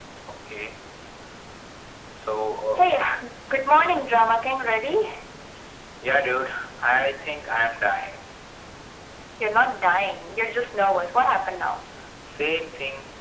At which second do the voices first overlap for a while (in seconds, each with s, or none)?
none